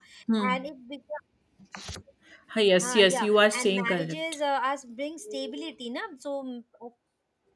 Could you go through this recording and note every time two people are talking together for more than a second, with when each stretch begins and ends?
2.8-4.2

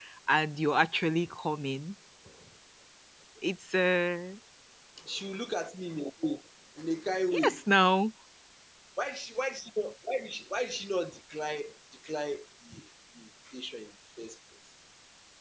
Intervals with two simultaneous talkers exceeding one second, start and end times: none

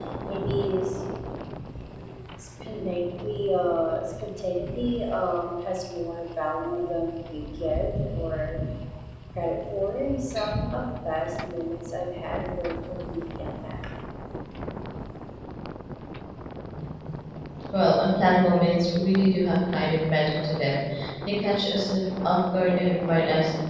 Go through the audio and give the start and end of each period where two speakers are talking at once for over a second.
none

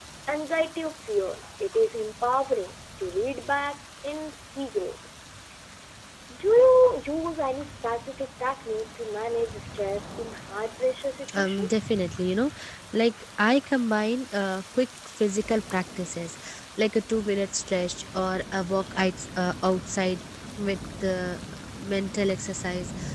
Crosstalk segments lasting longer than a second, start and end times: none

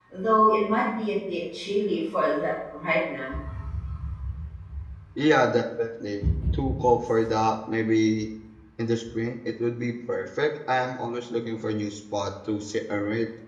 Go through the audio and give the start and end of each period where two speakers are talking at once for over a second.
none

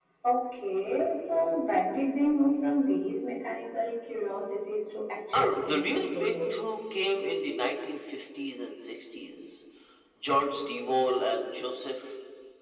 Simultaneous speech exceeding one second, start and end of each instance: 5.3-6.5

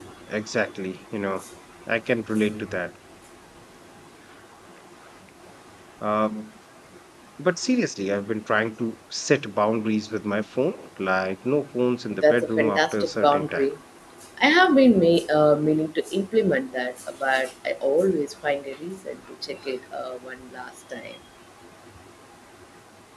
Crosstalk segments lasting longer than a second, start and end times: 12.2-13.7

